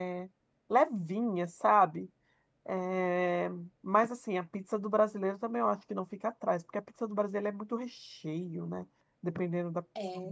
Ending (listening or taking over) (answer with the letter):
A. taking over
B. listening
A